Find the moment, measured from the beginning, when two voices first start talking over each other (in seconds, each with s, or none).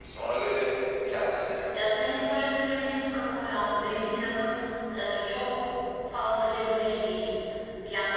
none